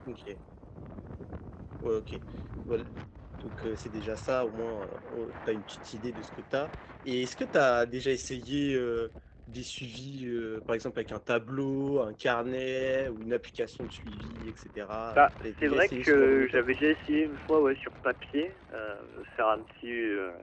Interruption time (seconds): 15.1 s

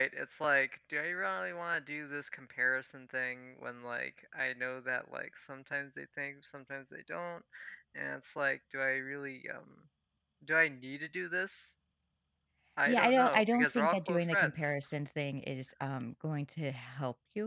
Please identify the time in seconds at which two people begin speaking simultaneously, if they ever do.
12.9 s

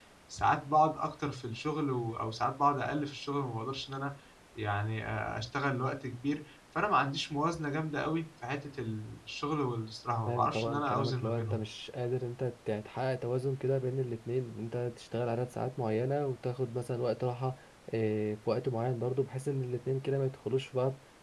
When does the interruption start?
10.3 s

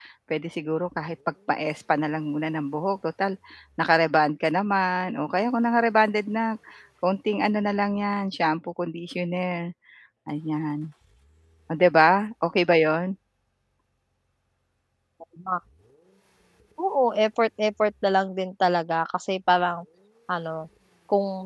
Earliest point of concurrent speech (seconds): none

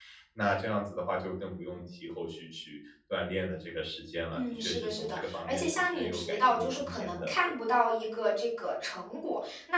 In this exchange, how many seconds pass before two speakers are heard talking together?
4.3 s

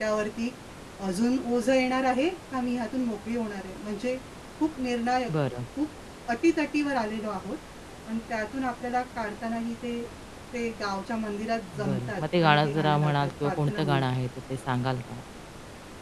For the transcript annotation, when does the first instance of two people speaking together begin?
11.7 s

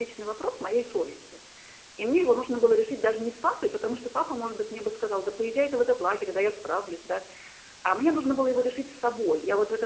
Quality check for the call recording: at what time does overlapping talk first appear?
none

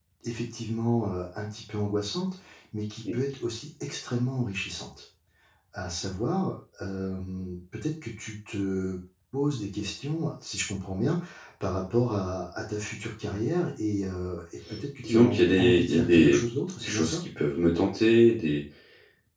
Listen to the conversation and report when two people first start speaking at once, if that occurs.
15.0 s

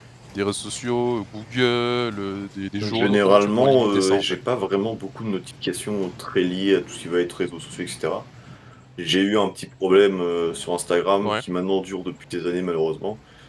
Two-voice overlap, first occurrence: 2.8 s

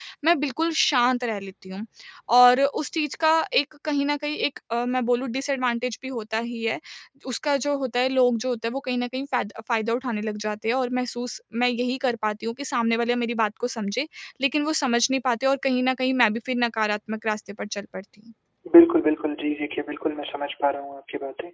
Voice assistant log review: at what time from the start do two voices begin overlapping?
none

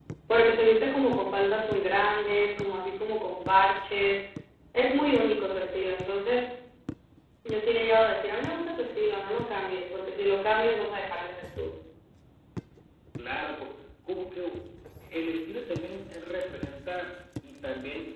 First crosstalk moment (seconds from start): none

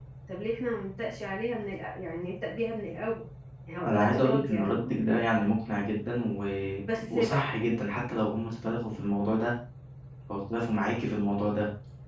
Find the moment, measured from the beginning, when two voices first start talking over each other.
3.8 s

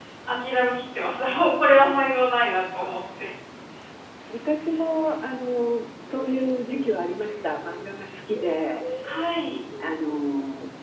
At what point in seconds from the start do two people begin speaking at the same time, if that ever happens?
none

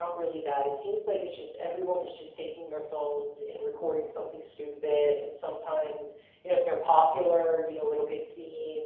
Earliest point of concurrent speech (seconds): none

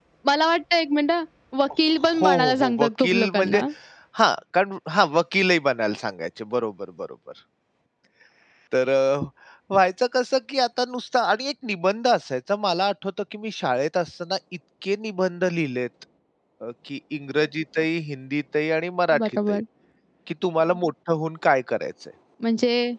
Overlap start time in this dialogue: 2.4 s

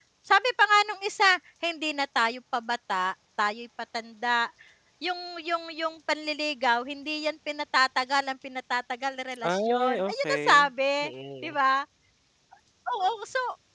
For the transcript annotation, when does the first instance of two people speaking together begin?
9.4 s

